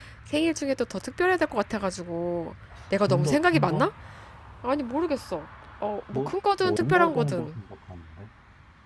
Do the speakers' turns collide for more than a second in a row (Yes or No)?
Yes